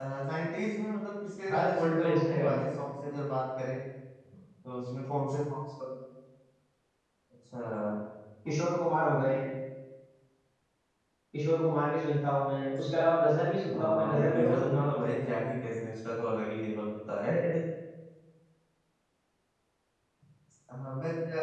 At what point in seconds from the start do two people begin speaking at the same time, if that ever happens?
1.5 s

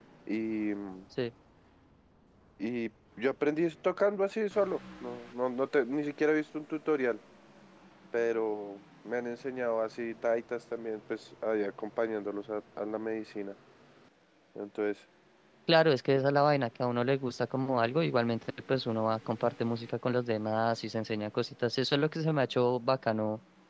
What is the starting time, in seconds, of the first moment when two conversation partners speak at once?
none

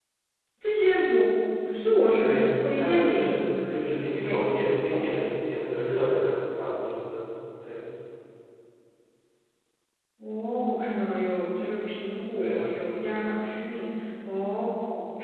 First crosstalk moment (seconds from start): 2.2 s

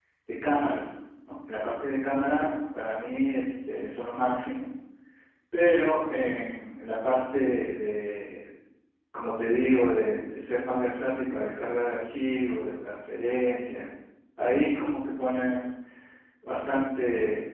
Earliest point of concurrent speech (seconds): none

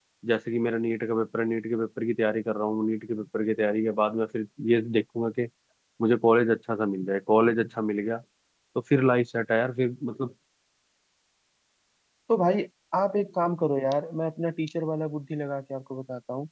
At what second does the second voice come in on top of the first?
none

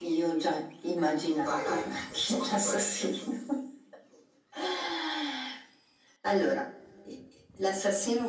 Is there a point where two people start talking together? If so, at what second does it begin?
1.4 s

